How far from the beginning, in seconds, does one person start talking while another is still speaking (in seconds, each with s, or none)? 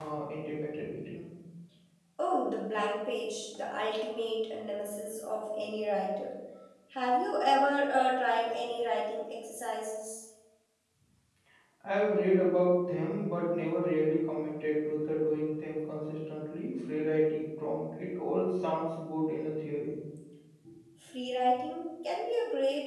none